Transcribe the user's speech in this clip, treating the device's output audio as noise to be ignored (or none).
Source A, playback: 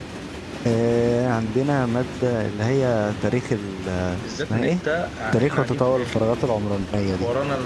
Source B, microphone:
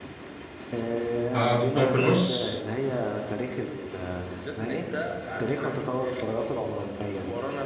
اه هتحطهم في النص